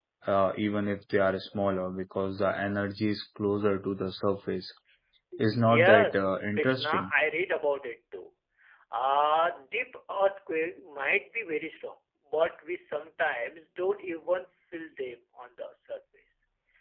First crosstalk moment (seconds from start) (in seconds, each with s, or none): 5.4 s